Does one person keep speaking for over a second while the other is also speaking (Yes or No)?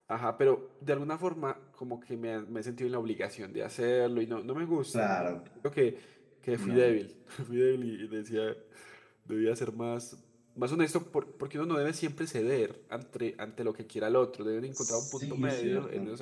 Yes